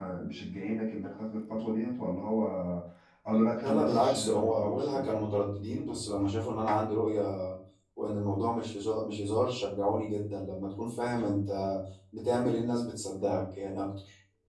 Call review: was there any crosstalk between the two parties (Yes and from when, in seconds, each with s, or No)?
Yes, from 3.6 s